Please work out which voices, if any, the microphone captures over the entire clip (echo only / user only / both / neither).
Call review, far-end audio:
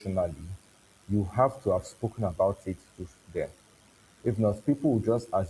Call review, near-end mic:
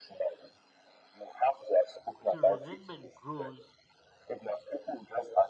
both